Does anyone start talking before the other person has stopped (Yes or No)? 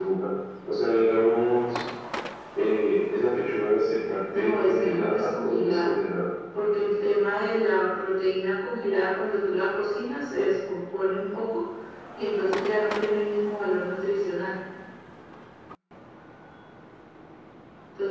Yes